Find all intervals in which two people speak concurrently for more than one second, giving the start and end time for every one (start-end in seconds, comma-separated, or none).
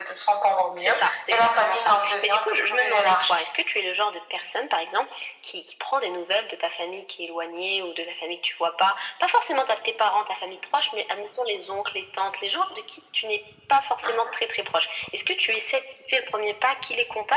0.8-3.4